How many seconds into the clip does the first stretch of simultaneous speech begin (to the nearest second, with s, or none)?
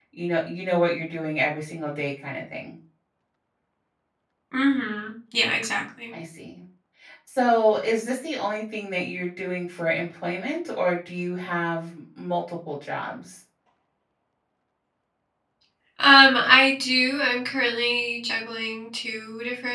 none